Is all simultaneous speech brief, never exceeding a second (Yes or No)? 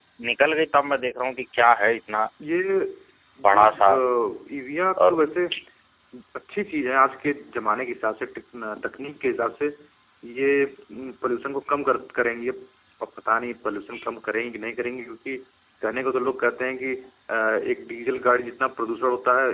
Yes